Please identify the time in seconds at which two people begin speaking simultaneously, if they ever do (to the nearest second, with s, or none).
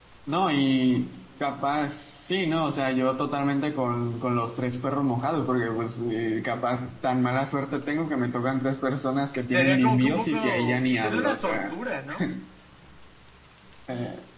10 s